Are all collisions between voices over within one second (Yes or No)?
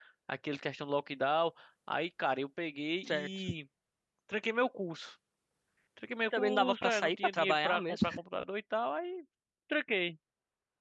No